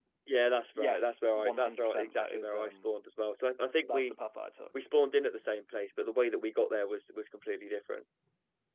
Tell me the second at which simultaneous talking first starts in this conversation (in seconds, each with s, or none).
0.8 s